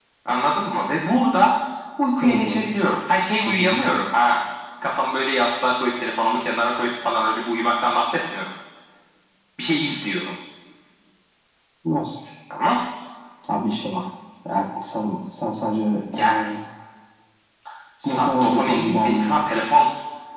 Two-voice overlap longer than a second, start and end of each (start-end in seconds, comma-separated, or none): 18.0-19.5